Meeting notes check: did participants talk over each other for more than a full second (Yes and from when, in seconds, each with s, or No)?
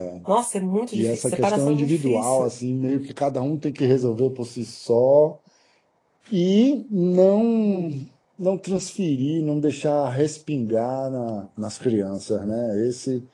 Yes, from 0.9 s